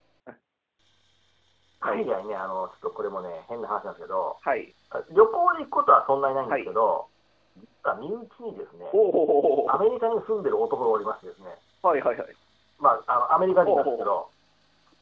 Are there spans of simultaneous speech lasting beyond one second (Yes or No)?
No